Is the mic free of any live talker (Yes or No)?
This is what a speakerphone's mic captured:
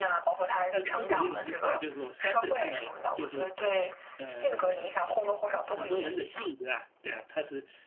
No